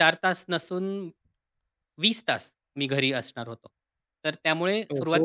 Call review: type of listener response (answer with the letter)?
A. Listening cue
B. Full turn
A